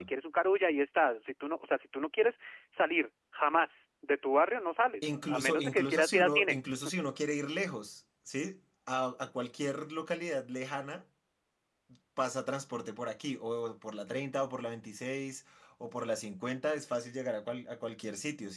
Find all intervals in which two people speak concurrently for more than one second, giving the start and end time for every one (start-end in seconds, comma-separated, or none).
5.3-6.6